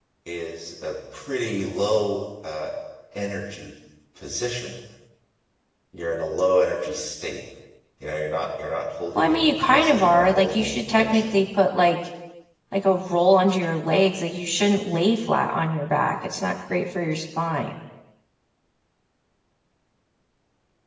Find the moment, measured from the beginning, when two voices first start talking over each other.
9.2 s

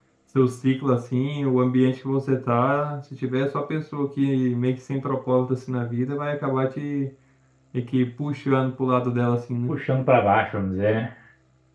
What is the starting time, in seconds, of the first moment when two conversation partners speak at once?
none

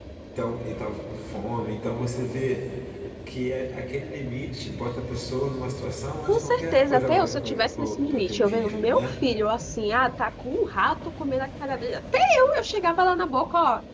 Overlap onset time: 6.3 s

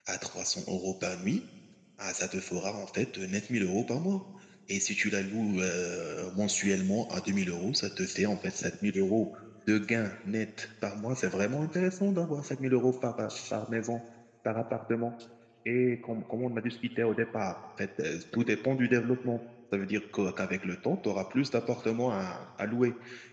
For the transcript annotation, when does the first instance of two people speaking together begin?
none

